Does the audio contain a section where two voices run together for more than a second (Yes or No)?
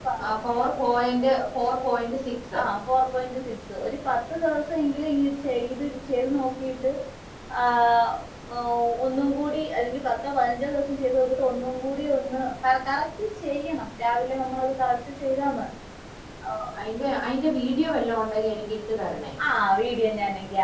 No